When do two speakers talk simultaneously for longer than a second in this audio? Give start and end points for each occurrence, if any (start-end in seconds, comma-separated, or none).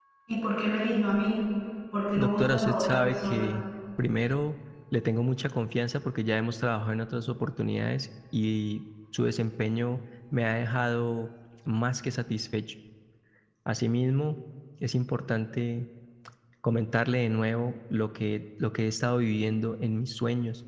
2.2-3.6